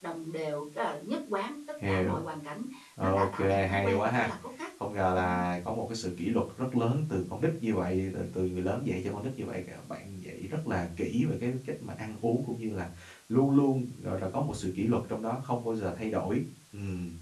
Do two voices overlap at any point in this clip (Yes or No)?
Yes